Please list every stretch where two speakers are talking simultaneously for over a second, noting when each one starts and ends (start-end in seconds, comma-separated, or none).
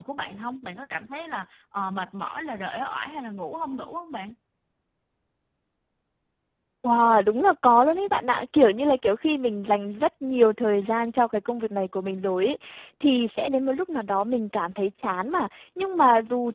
none